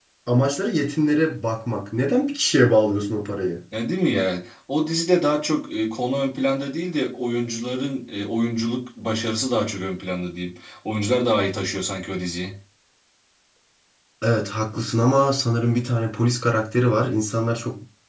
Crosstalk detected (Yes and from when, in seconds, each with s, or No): No